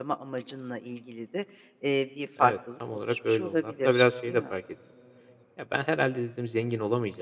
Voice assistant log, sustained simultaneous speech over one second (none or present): present